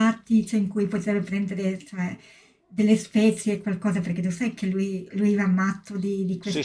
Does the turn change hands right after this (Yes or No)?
Yes